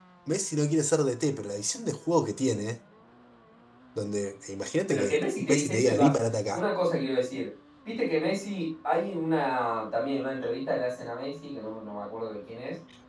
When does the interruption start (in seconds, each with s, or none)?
4.9 s